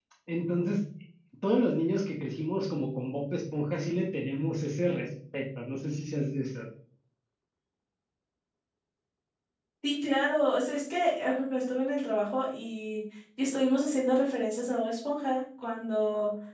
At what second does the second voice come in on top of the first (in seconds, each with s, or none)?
none